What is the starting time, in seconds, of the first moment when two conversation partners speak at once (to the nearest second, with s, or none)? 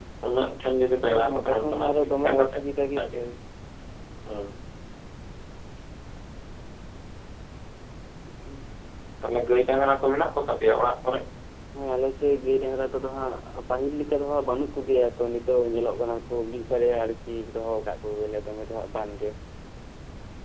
1 s